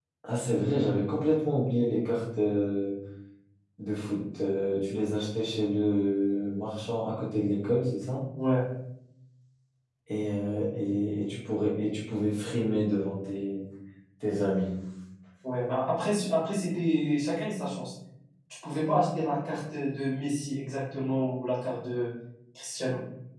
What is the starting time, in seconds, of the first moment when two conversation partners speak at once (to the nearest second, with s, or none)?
none